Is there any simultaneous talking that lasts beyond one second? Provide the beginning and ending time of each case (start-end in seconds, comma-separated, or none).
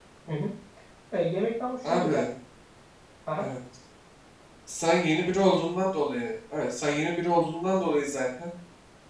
none